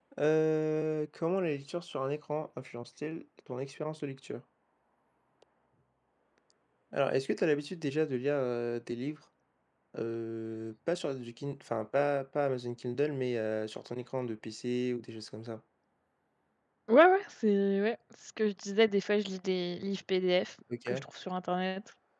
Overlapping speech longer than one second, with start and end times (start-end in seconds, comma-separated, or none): none